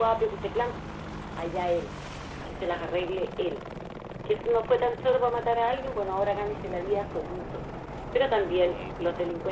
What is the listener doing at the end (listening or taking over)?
listening